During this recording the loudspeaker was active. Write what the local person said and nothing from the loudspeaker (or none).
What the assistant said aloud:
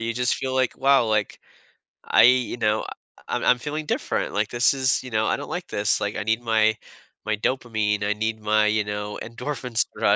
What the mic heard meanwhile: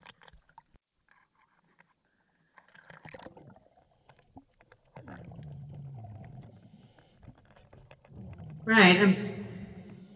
Right. Um,